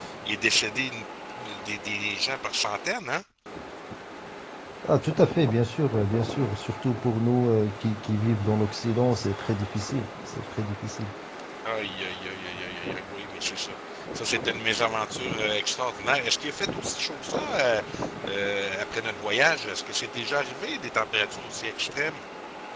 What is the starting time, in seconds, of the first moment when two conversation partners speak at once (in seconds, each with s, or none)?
none